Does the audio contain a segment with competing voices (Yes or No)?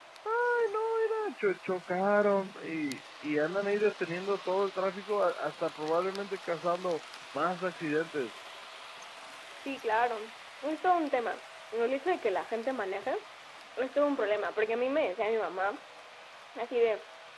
No